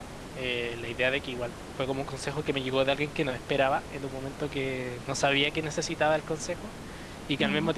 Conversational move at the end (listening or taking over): listening